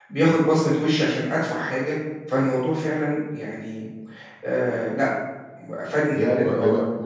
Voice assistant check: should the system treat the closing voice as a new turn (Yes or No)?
Yes